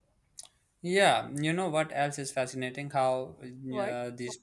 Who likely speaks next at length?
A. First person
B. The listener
A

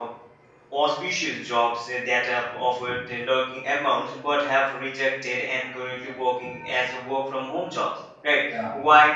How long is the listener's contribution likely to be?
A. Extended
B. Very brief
B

